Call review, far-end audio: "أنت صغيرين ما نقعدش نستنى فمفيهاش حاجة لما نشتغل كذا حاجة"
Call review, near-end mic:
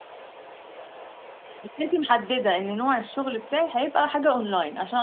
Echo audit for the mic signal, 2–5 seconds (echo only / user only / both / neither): user only